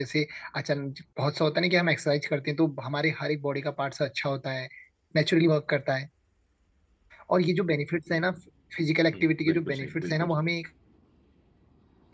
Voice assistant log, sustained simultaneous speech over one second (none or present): present